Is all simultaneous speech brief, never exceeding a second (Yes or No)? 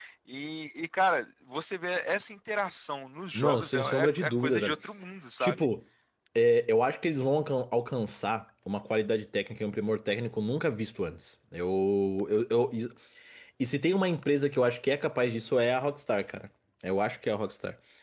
No